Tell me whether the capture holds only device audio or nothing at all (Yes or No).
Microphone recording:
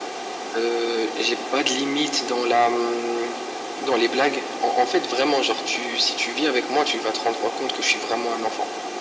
Yes